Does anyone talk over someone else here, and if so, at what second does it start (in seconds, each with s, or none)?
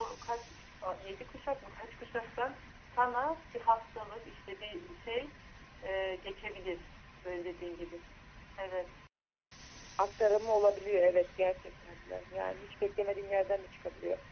none